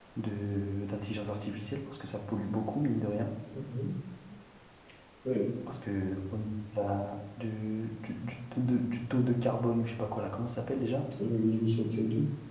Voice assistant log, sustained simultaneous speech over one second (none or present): none